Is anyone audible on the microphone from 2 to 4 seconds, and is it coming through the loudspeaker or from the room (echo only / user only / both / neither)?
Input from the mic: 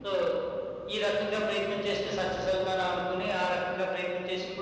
echo only